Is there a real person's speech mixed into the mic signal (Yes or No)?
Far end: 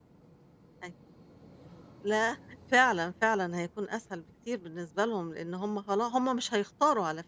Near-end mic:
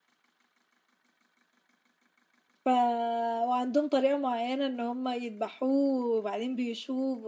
Yes